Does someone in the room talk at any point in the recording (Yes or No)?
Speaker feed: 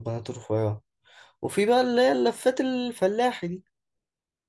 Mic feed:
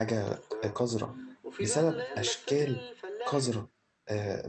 Yes